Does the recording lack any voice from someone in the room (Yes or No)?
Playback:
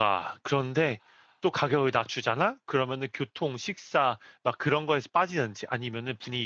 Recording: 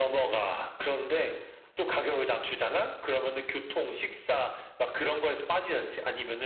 Yes